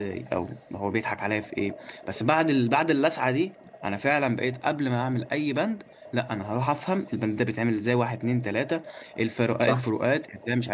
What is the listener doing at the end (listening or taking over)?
listening